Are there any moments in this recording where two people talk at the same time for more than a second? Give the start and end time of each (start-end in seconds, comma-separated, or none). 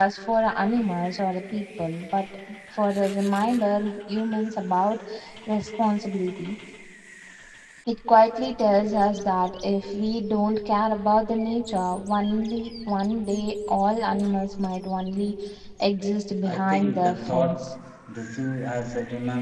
16.5-17.7